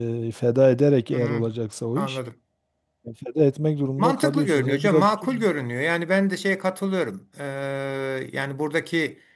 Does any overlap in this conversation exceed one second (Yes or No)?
Yes